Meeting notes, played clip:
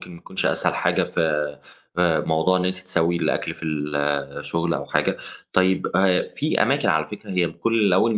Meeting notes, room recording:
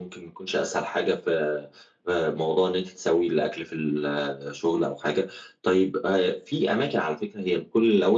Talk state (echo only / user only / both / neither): echo only